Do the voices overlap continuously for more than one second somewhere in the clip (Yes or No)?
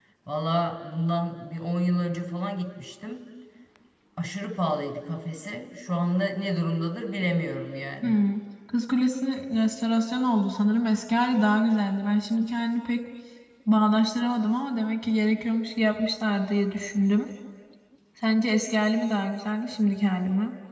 No